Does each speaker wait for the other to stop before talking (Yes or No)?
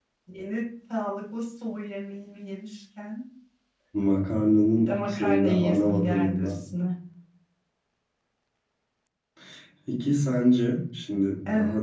No